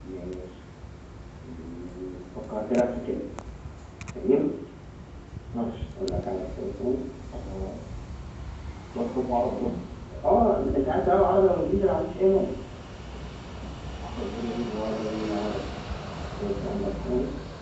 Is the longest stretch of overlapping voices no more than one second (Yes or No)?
Yes